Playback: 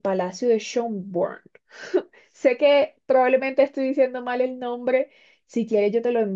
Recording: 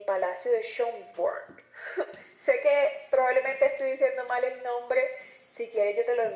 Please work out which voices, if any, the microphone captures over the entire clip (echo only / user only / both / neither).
echo only